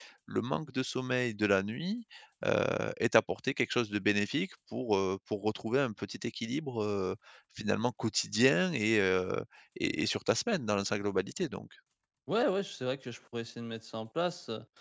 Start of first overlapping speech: none

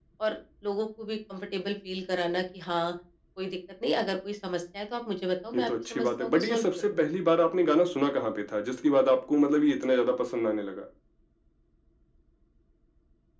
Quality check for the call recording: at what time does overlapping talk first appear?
5.5 s

